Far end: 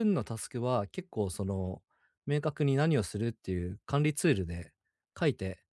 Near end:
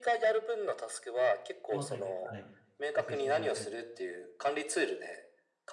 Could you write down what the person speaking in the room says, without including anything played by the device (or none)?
そのあたりで、はい、調整していただけると。